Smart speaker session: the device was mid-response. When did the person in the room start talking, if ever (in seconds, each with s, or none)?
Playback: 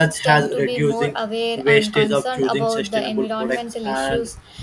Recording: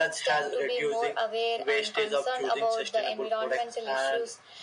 none